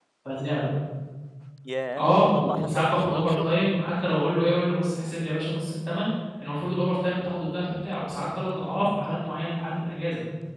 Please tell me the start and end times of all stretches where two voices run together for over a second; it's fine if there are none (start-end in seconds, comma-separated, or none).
2.0-3.6